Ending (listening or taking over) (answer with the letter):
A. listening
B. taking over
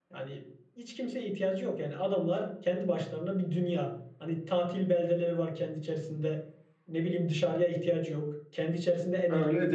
B